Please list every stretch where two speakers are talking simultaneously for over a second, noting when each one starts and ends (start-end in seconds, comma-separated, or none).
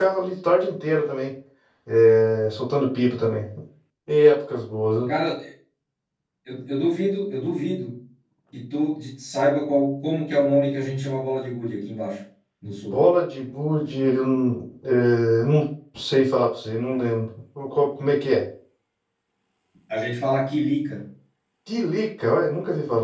none